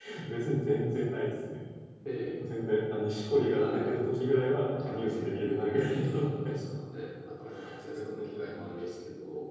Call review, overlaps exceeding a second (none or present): present